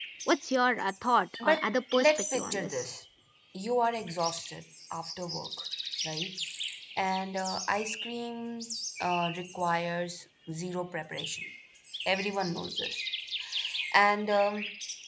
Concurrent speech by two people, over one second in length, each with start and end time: 1.4-2.8

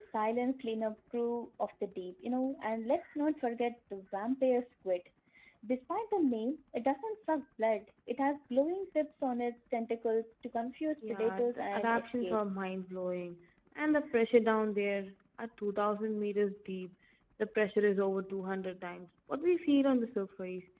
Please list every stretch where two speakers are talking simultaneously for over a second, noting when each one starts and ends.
11.1-12.4

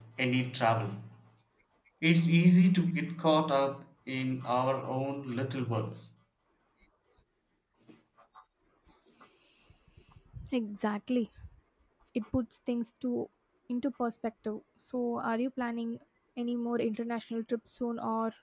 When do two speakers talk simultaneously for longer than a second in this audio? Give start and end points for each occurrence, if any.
none

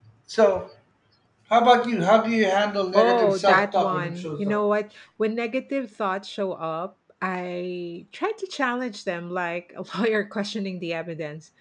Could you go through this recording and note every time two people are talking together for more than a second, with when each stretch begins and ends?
2.9-4.6

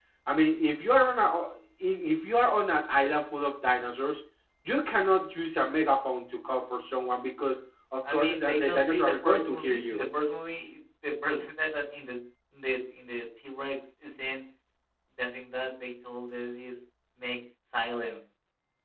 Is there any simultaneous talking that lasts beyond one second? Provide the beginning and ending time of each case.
8.1-10.0

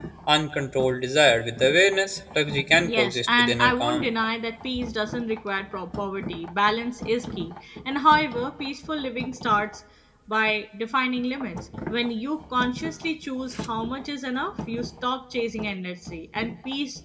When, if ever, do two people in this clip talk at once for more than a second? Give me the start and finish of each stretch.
2.8-4.1

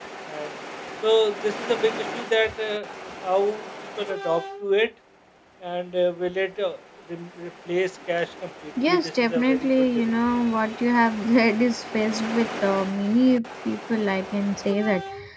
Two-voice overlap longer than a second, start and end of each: 8.9-10.2

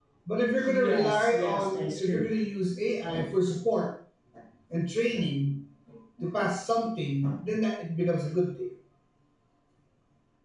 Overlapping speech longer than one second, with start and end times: 0.7-2.2

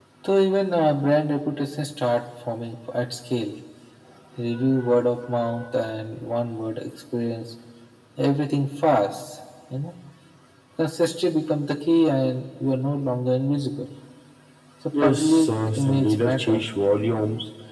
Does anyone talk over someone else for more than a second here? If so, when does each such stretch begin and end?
15.0-16.6

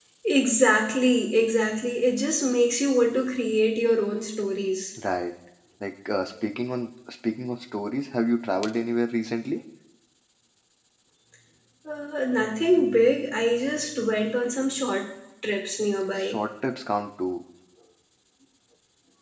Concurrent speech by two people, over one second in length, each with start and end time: none

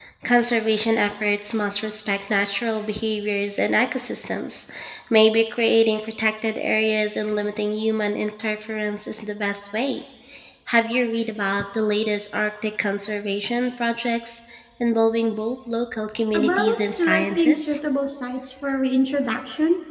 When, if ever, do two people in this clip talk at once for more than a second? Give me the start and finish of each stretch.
16.4-17.8

